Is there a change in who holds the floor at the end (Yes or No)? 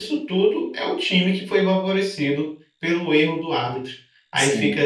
No